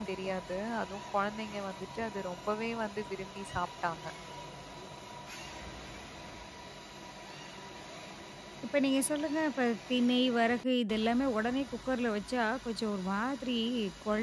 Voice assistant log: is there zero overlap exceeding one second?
Yes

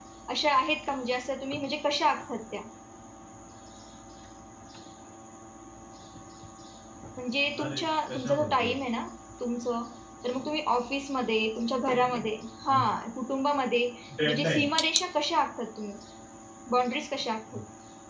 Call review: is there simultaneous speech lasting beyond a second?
Yes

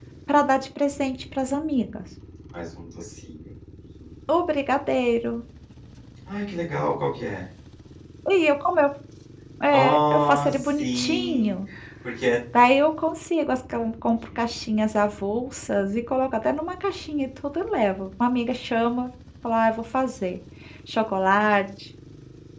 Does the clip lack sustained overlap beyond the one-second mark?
No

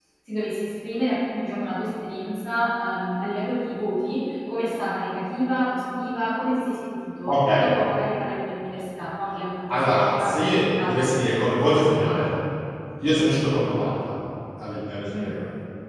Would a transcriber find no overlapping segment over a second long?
No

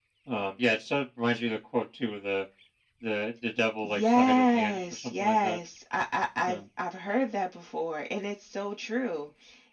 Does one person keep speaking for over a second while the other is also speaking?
Yes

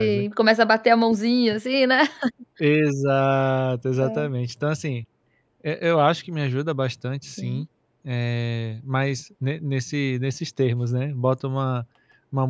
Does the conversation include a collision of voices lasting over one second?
No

